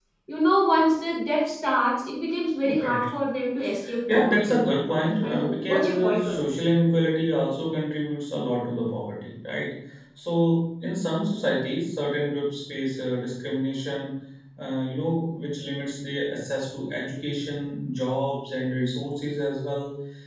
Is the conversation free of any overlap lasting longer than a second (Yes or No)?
No